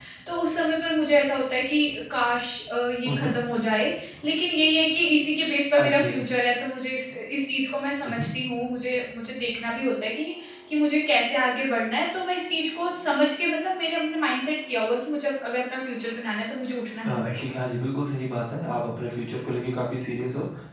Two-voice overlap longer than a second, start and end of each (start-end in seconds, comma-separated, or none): none